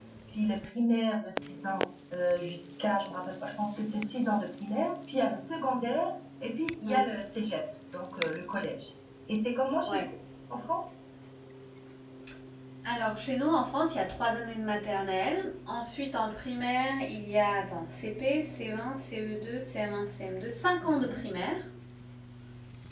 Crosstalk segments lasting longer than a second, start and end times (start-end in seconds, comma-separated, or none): none